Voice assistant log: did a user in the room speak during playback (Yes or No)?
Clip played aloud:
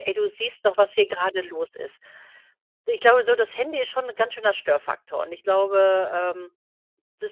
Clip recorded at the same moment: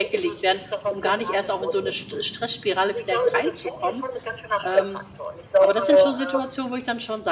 Yes